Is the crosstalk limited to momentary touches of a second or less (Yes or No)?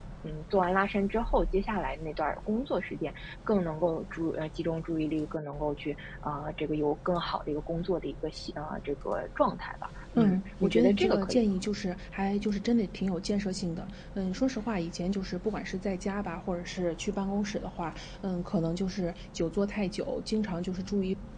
No